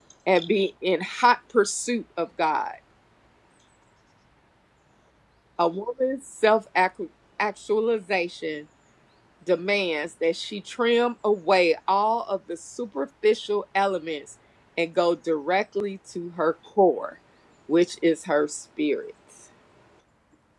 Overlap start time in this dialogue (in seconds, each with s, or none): none